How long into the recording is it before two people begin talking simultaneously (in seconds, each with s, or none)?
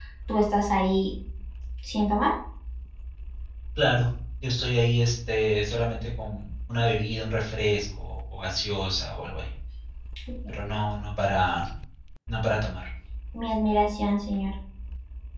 none